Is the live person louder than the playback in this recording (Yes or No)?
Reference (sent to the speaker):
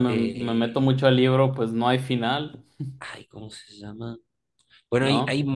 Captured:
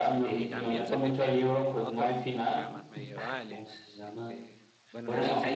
No